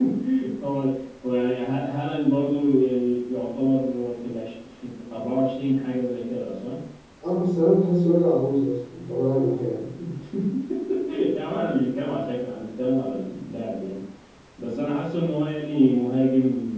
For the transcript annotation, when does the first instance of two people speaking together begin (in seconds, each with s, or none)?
none